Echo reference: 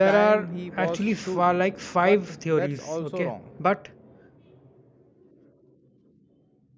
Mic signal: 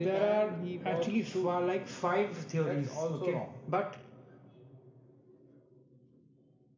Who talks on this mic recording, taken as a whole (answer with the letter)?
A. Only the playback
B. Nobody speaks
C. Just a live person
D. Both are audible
A